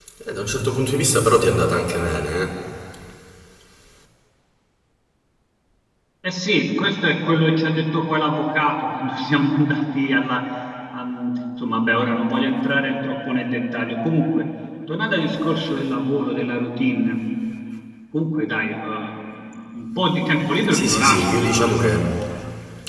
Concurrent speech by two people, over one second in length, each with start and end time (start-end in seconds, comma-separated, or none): 20.7-21.9